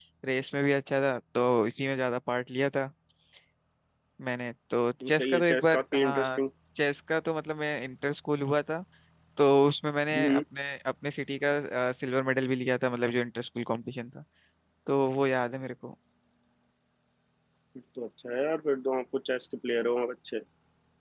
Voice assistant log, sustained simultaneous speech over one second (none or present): present